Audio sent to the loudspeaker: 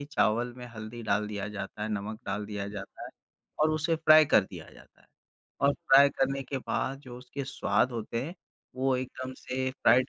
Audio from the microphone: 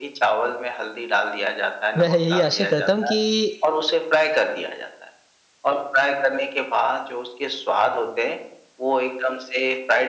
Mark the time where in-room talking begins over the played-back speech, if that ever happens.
2.0 s

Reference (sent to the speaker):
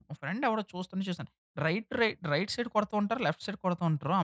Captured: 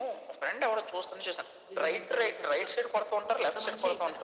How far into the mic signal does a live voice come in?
1.7 s

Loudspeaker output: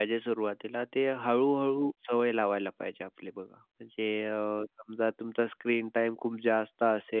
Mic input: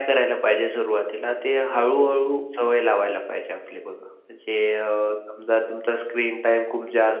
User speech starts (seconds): none

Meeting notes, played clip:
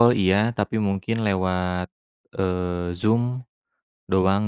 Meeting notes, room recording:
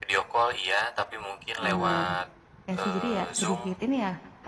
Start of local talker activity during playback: 1.6 s

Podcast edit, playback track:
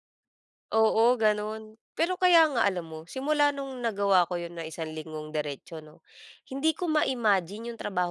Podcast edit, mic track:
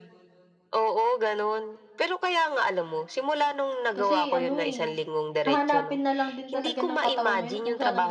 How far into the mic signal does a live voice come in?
3.9 s

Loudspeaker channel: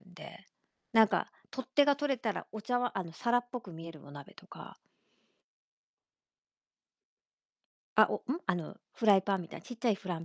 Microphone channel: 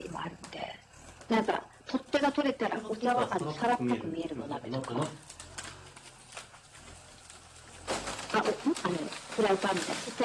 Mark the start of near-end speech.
2.5 s

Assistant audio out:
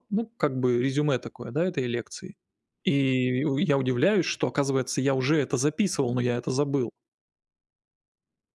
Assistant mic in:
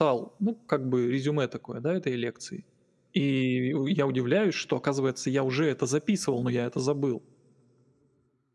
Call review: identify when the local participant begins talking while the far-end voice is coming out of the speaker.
none

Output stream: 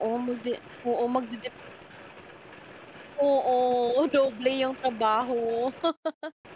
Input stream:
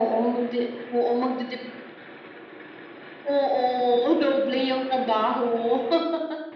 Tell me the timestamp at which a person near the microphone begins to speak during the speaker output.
none

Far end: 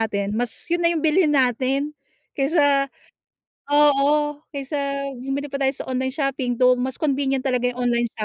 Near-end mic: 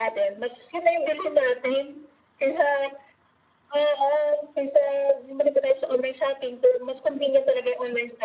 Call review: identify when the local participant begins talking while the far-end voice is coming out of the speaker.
none

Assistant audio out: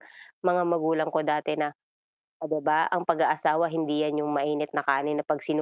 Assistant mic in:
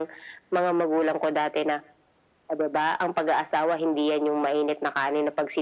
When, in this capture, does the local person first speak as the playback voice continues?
none

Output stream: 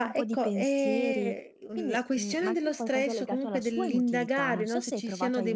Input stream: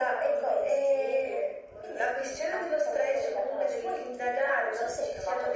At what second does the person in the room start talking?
none

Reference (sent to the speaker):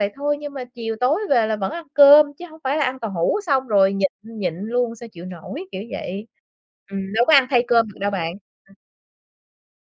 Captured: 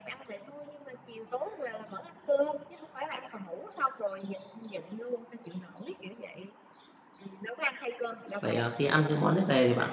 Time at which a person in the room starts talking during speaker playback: 8.4 s

